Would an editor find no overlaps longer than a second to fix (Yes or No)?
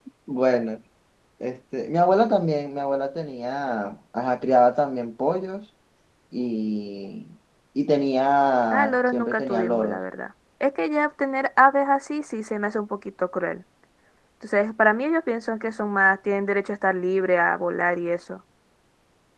No